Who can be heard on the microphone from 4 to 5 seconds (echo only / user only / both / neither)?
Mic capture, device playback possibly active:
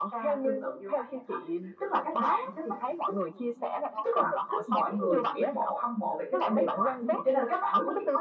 both